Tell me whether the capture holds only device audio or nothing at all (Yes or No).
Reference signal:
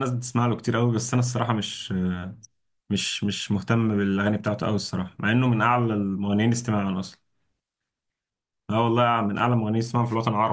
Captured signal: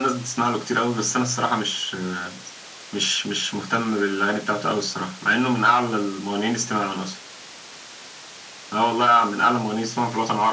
Yes